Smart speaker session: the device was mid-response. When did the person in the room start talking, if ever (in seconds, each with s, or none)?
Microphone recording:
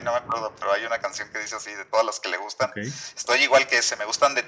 2.6 s